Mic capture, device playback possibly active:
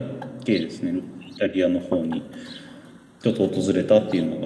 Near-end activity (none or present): none